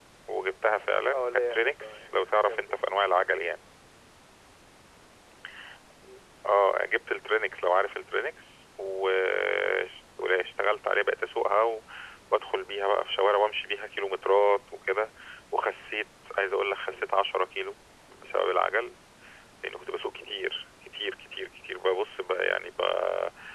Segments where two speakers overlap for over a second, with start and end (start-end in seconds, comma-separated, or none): 1.1-2.8